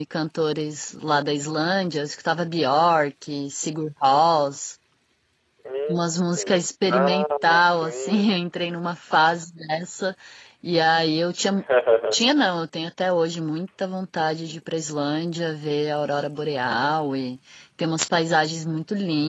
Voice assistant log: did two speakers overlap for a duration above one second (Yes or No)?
Yes